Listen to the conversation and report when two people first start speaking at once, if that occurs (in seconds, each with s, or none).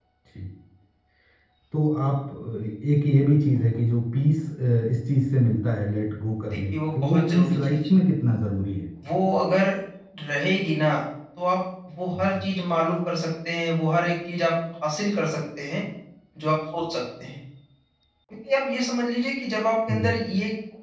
6.5 s